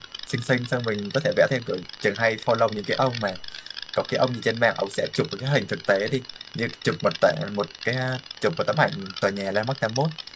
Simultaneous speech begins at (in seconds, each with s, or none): none